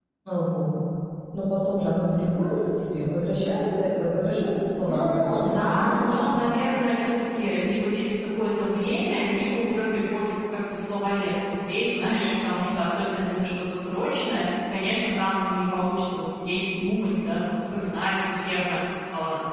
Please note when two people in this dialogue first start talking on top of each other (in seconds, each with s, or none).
4.8 s